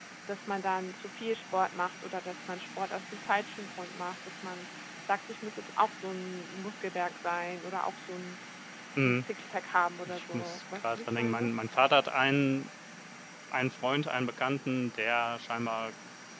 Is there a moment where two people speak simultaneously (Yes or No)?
Yes